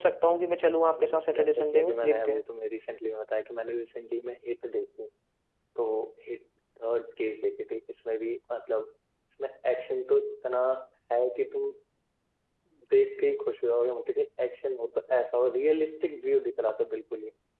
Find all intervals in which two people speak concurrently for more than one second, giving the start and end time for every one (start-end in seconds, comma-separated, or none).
1.0-2.4